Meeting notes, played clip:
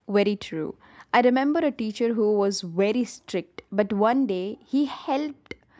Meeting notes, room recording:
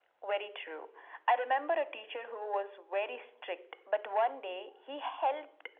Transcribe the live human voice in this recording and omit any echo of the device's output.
none

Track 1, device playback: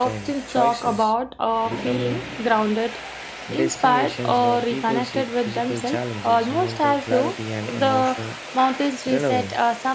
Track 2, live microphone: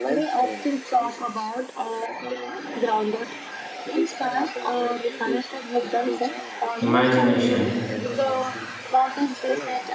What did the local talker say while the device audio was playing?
imagination

